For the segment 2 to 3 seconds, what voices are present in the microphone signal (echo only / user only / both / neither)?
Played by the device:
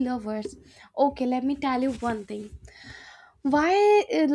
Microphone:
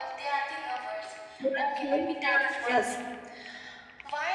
both